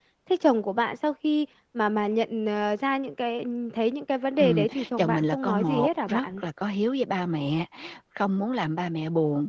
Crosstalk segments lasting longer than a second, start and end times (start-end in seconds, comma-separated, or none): 4.4-6.4